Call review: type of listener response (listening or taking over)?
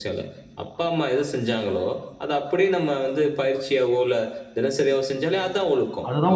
taking over